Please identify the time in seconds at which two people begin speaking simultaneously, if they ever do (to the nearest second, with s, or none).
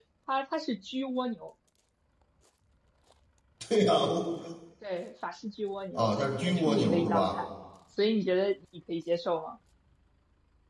6 s